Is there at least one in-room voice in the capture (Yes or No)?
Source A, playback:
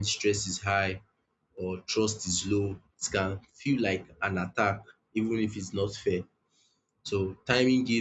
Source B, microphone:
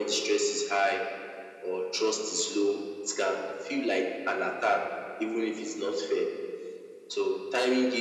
No